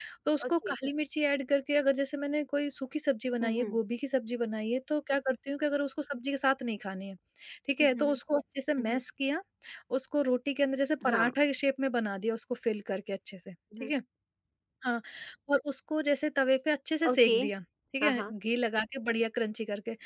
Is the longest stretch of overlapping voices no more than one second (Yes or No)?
Yes